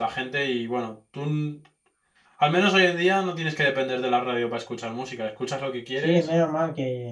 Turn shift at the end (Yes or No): Yes